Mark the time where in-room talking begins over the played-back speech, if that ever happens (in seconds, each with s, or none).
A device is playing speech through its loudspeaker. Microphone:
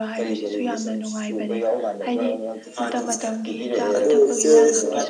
2.8 s